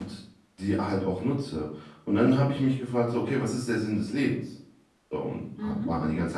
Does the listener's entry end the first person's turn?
No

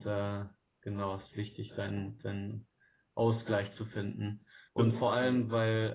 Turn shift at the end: No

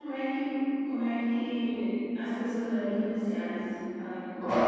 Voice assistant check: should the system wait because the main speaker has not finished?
No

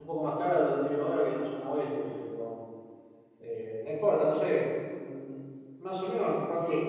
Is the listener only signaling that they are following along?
Yes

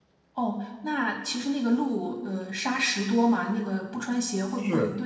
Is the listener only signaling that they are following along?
No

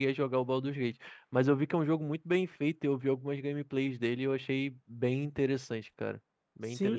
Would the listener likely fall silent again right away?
No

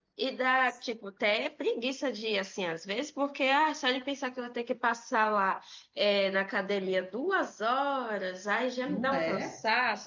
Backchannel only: Yes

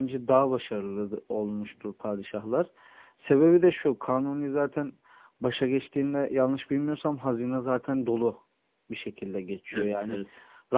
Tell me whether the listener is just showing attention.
Yes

